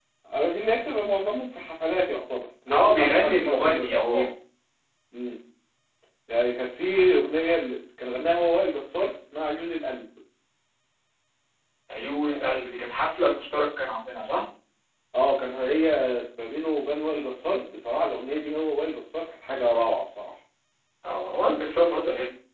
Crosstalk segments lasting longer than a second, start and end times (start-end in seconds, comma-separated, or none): 2.7-4.3